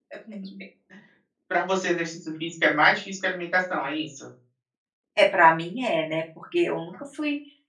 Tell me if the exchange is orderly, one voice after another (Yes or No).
Yes